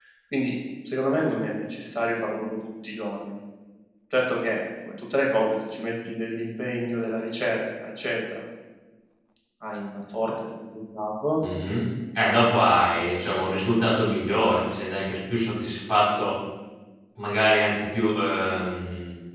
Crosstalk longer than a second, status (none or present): none